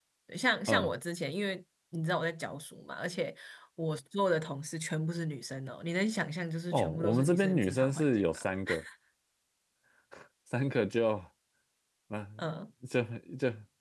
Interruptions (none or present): present